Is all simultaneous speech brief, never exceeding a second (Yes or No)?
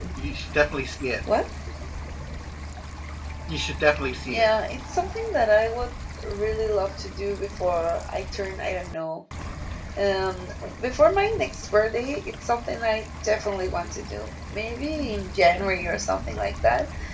Yes